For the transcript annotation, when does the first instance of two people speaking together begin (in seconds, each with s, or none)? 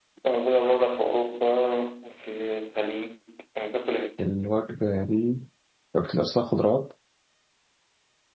none